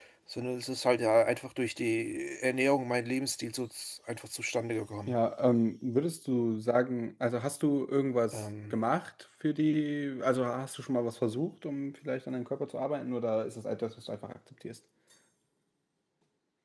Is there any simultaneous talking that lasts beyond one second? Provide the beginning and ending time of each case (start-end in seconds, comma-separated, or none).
none